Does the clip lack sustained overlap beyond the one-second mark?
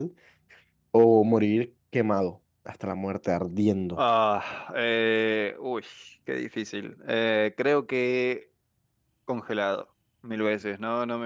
Yes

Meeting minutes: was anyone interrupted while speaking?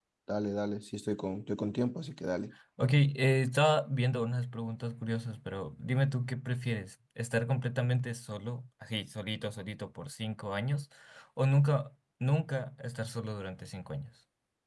No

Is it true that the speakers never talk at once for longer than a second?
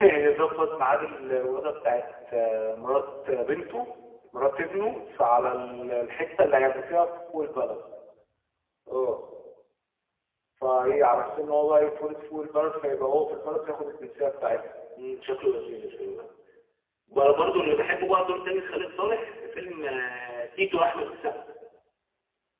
Yes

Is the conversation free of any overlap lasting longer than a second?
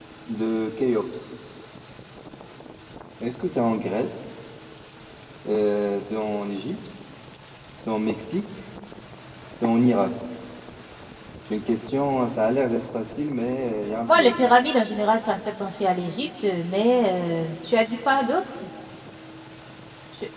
Yes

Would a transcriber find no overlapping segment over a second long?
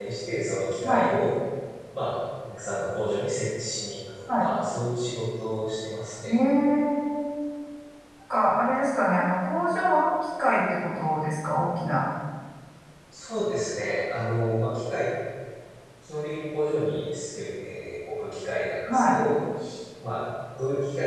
Yes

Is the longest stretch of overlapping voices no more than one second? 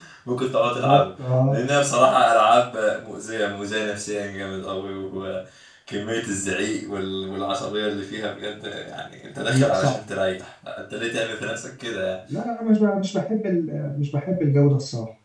Yes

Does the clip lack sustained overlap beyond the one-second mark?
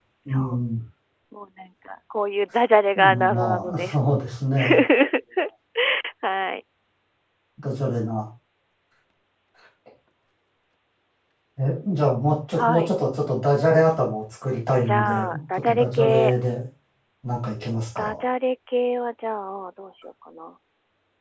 No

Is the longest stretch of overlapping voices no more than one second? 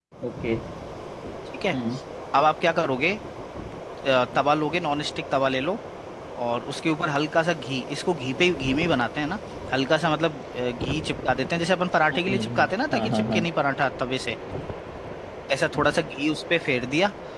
No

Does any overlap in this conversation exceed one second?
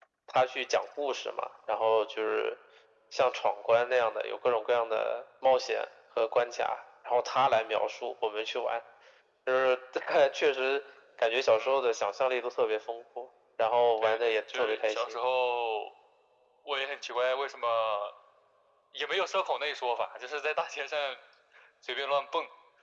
Yes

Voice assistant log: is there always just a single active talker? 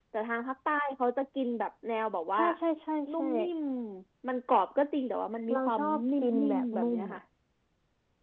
No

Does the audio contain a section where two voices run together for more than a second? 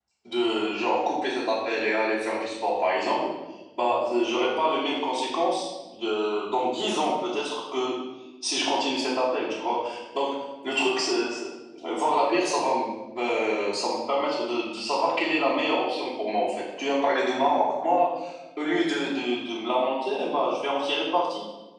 No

